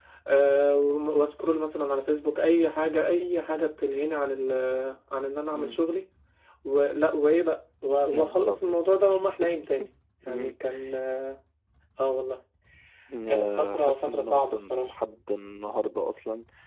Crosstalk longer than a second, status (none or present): present